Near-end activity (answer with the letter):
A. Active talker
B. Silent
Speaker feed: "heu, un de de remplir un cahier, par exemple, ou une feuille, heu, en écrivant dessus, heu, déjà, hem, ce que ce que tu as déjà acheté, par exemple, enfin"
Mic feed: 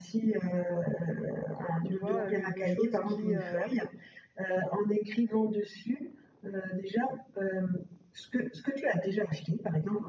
A